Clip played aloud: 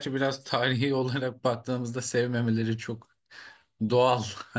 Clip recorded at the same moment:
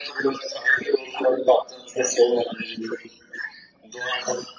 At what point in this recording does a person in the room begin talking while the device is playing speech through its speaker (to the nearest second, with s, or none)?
none